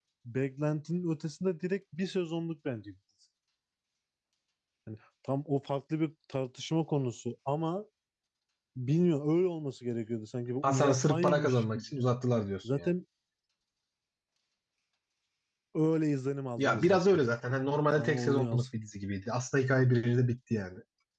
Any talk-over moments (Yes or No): Yes